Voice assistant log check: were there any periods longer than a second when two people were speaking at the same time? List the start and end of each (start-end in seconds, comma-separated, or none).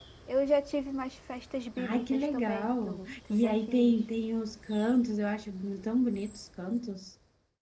1.8-3.9